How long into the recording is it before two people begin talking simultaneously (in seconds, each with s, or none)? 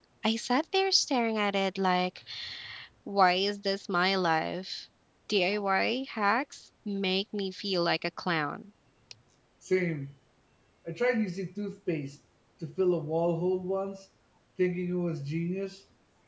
none